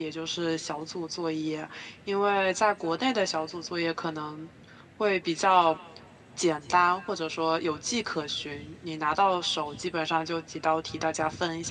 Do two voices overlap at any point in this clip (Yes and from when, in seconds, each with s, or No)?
No